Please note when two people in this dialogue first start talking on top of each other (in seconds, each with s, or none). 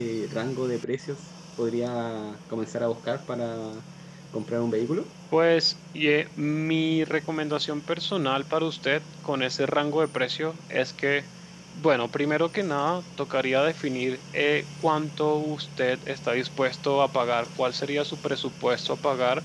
none